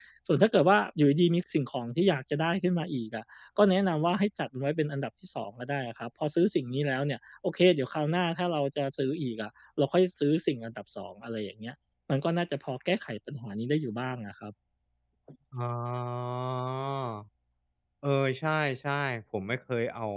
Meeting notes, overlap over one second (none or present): none